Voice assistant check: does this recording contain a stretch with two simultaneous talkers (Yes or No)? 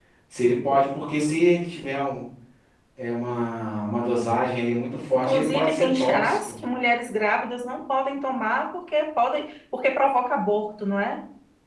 Yes